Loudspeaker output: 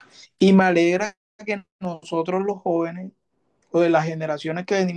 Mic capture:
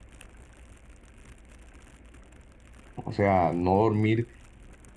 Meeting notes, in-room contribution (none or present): present